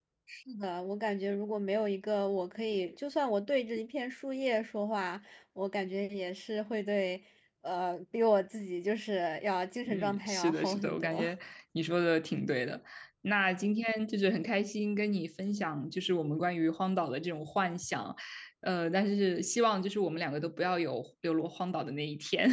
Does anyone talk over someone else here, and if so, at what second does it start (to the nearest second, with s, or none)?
10 s